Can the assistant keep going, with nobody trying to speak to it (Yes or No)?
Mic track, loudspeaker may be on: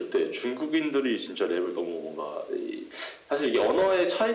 Yes